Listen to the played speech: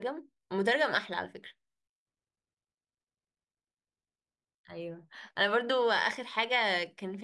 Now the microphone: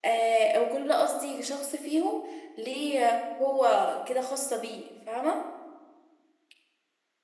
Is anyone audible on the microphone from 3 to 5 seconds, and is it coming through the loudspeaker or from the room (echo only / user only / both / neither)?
user only